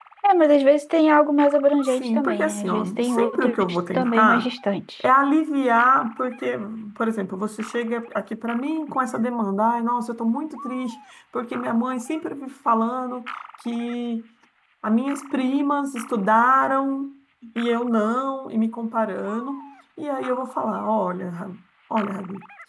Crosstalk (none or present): present